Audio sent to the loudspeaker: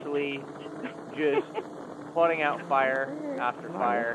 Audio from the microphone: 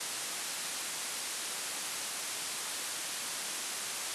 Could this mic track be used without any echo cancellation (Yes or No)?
Yes